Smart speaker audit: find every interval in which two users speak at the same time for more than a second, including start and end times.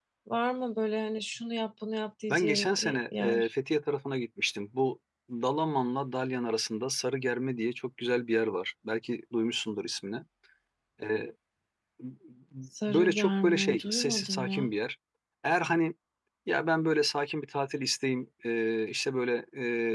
2.3-3.5, 12.9-14.7

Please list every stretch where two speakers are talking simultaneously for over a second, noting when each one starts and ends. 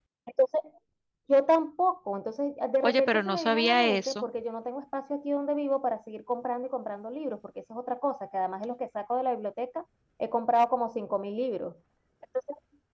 2.8-4.2

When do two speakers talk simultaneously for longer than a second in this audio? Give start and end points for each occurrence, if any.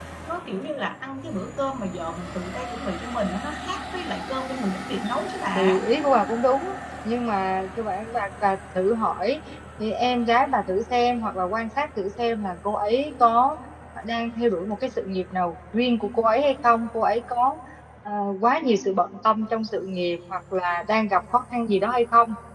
none

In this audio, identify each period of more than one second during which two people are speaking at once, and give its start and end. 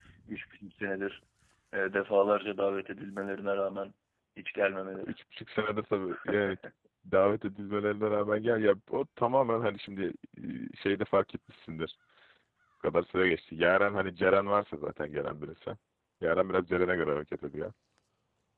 none

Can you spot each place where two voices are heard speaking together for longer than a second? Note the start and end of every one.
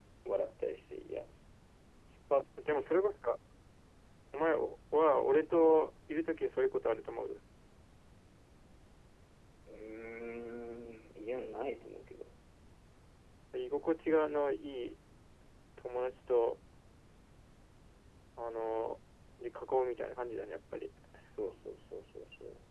none

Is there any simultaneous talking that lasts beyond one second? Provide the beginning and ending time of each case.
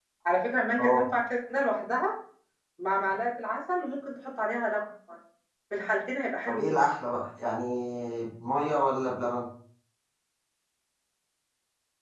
none

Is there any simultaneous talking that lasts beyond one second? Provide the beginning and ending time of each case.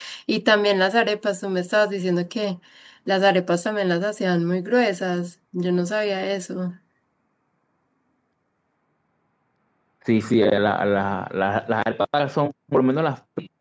none

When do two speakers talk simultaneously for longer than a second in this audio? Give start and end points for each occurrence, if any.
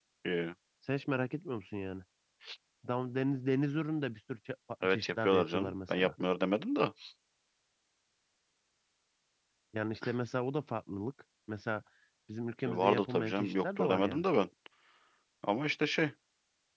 4.8-6.1, 12.7-14.2

